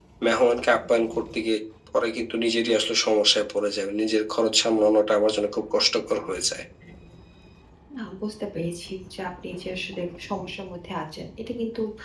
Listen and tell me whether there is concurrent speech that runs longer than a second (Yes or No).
No